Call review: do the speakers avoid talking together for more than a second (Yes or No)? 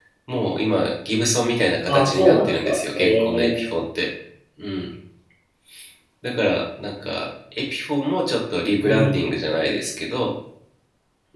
No